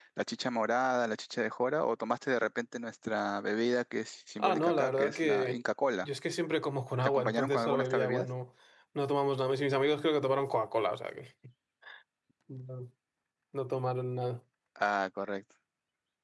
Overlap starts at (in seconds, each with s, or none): 4.4 s